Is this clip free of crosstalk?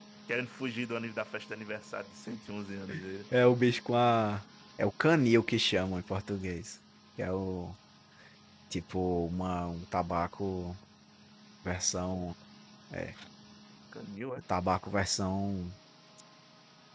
Yes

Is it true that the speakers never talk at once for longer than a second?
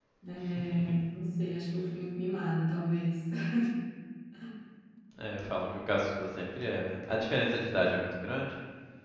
Yes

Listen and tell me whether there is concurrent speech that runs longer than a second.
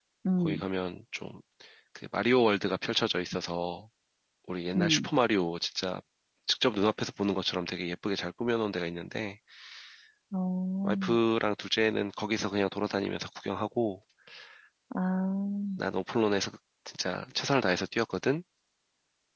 No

